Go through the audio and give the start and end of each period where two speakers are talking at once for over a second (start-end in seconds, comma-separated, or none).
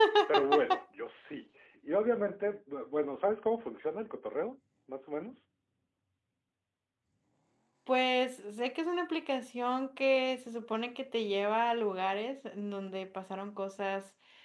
none